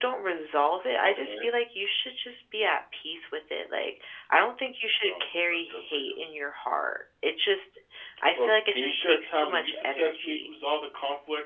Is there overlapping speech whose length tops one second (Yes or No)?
Yes